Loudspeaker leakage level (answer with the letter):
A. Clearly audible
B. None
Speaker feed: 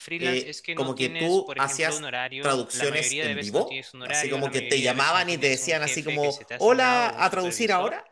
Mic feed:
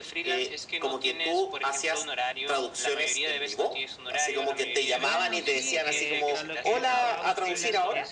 A